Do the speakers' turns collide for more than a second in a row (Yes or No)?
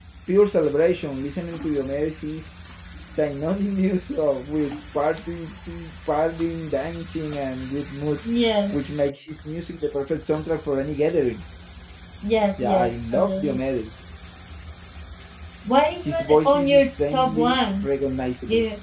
Yes